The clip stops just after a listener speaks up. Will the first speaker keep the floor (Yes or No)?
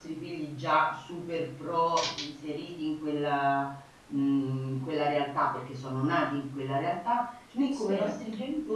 Yes